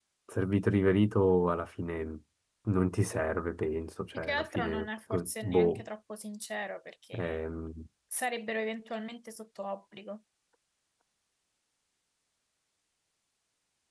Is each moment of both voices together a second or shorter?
No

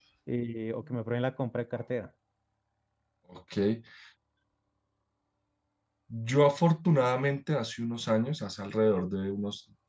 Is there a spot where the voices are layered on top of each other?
No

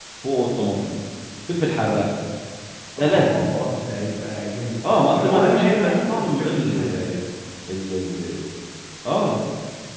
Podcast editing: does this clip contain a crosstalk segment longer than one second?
Yes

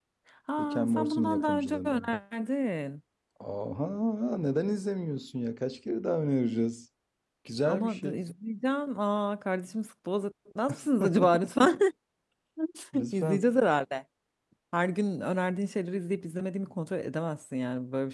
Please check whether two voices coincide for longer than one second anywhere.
Yes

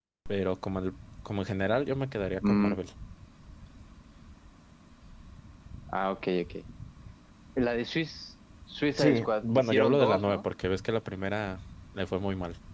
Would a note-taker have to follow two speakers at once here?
Yes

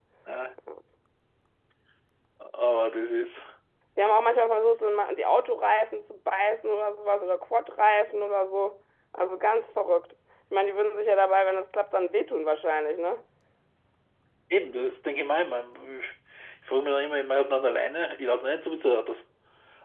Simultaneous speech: No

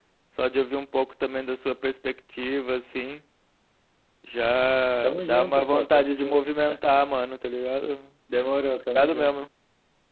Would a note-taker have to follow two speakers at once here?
Yes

